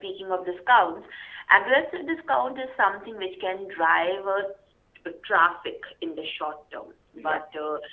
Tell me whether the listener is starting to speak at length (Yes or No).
No